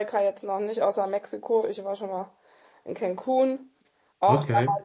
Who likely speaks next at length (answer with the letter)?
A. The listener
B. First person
B